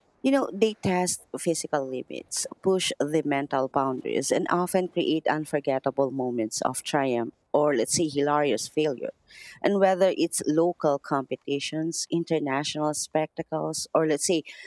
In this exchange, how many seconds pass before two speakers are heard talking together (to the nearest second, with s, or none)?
none